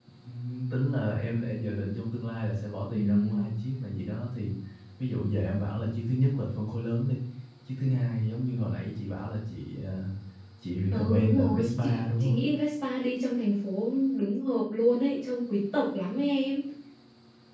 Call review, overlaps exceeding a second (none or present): present